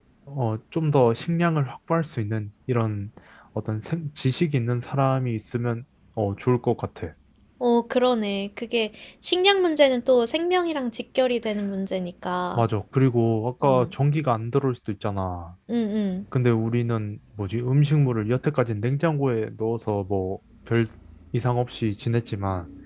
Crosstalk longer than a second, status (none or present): none